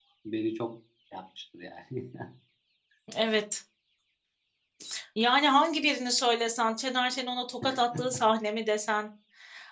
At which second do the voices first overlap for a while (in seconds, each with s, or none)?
none